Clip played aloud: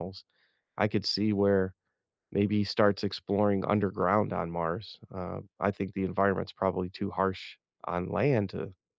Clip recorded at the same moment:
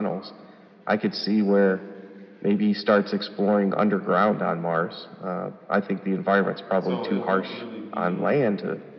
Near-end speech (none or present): present